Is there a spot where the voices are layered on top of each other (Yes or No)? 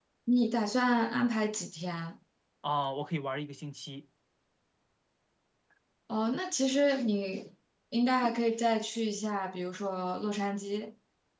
No